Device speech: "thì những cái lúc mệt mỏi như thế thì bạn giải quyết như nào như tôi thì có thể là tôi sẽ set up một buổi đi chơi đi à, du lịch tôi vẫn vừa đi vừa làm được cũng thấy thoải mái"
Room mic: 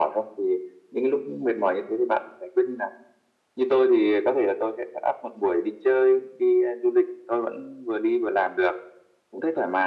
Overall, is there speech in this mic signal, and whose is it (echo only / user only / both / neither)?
echo only